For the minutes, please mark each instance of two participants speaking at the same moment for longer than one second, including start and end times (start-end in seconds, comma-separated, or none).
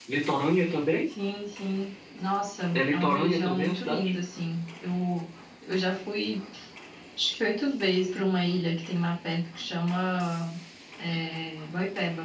2.7-4.1